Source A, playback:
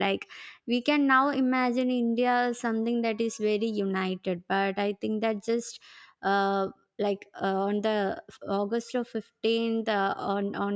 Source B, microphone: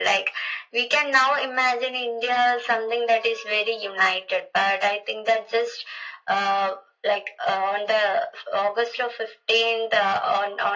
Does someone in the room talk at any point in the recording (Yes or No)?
No